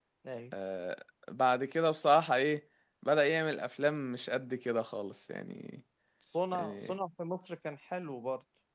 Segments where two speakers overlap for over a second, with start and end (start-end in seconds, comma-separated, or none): none